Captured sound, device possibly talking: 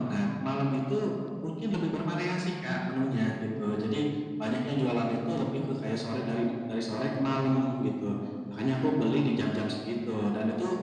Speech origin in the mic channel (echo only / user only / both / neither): echo only